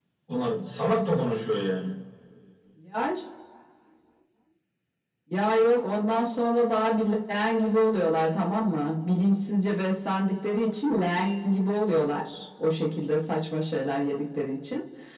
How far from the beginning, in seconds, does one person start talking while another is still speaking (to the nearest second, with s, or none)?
none